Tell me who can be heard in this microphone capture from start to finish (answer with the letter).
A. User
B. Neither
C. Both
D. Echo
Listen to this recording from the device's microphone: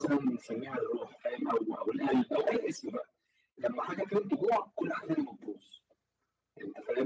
D